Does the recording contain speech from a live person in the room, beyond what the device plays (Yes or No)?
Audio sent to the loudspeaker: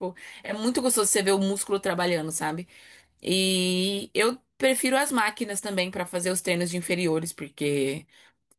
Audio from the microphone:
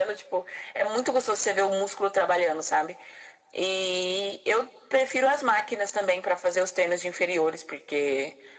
No